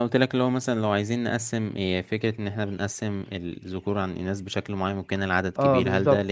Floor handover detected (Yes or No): Yes